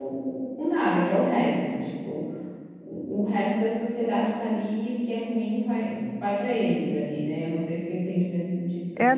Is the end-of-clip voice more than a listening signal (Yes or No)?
Yes